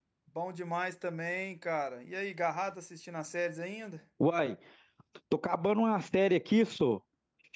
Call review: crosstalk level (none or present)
none